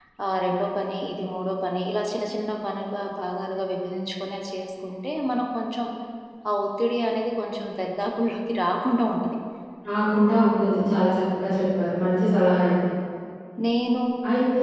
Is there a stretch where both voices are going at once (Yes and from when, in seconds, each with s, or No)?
No